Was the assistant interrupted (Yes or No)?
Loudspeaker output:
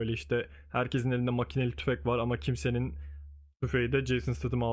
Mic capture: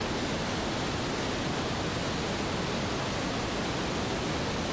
No